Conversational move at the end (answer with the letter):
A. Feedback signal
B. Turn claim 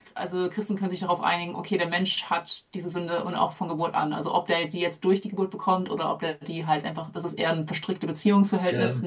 A